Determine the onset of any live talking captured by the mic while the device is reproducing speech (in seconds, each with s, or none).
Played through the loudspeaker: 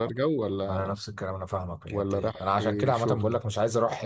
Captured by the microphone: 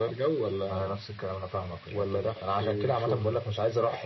none